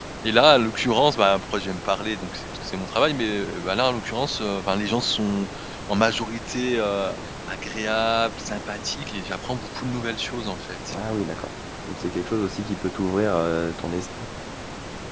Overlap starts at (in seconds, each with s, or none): none